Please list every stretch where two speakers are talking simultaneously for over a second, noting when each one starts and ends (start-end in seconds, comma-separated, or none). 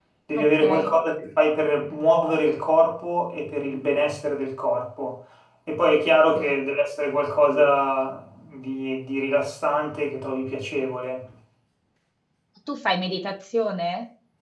none